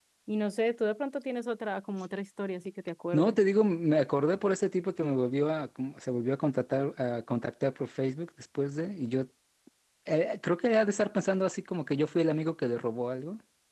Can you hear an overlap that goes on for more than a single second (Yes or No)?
No